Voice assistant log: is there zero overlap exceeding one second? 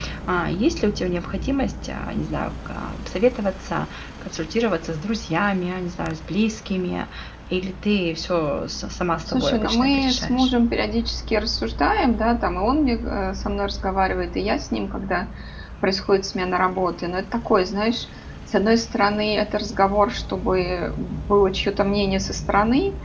No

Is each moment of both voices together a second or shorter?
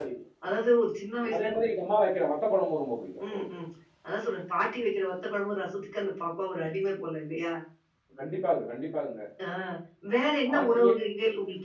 Yes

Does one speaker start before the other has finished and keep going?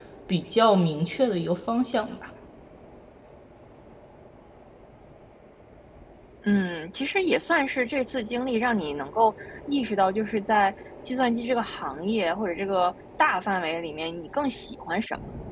No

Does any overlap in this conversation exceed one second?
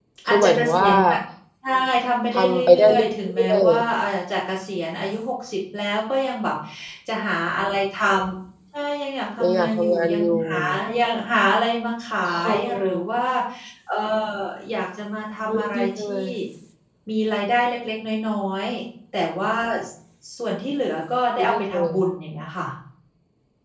Yes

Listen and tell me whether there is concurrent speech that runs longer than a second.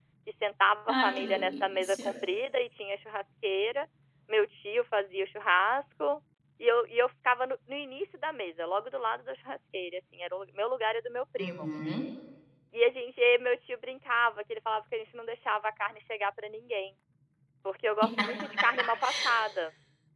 Yes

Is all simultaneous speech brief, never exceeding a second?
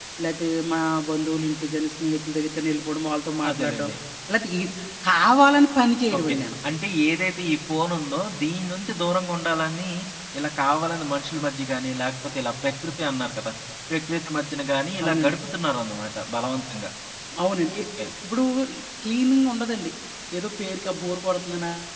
Yes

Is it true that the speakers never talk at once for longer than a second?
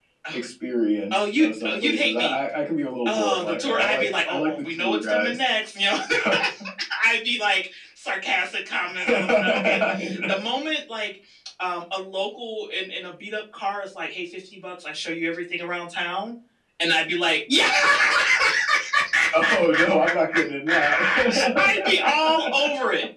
No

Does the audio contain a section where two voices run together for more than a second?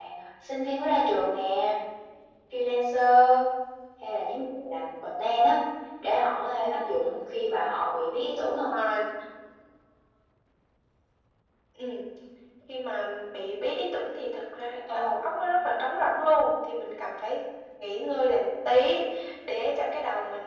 No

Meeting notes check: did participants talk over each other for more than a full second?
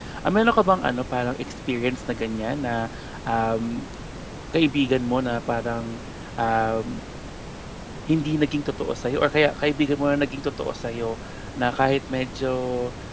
No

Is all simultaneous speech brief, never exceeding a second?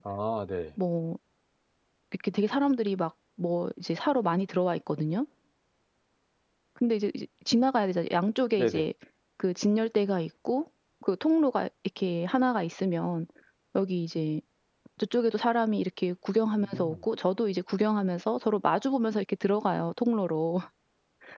Yes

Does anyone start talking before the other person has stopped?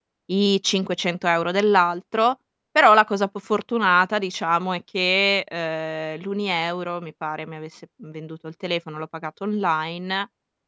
No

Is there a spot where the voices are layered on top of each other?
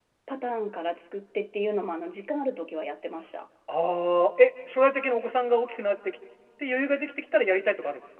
No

